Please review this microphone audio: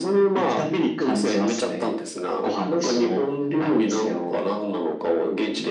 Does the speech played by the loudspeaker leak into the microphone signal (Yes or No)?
Yes